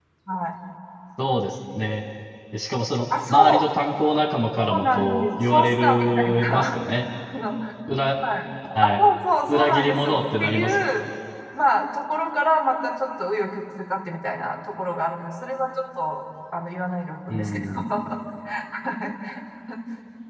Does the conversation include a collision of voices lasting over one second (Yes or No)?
Yes